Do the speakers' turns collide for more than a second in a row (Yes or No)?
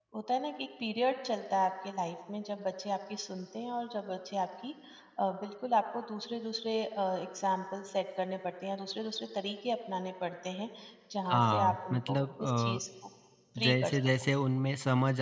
Yes